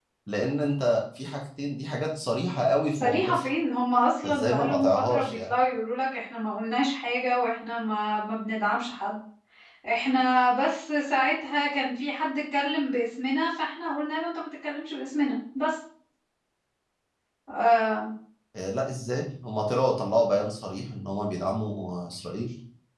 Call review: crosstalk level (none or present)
present